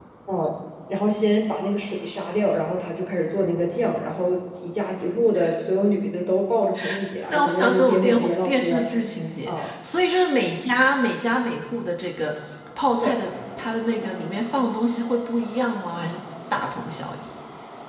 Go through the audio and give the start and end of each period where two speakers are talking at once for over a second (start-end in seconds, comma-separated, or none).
7.3-8.8